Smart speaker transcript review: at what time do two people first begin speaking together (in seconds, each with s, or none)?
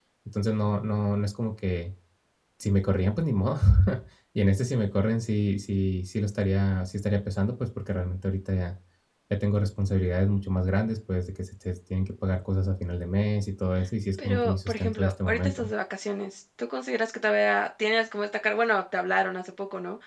14.2 s